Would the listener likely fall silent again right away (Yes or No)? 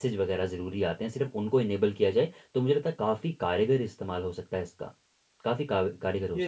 No